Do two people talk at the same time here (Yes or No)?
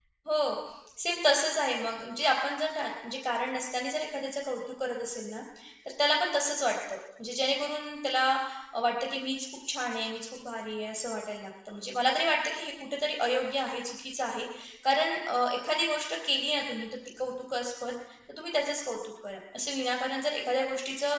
No